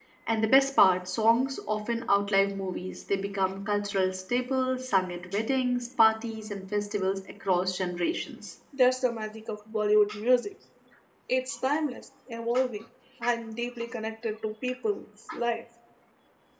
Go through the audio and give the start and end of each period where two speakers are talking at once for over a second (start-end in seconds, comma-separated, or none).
none